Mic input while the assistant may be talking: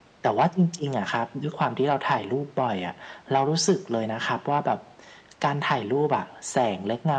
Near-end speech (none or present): none